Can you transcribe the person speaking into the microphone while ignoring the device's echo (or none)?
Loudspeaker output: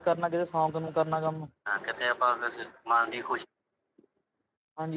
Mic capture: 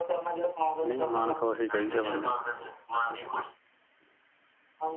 ਨਹੀਂ ਮਨ ਖੁਸ਼ ਹੀ ਚਾਹੀਦਾ ਬੰਦੇ ਨੂੰ।